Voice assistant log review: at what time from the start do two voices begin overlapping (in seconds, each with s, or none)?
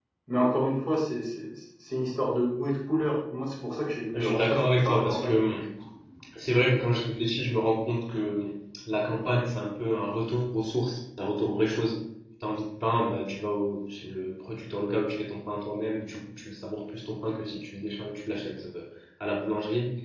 4.1 s